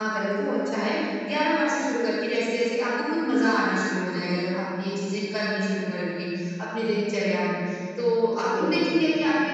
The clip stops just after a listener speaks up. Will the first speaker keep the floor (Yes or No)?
Yes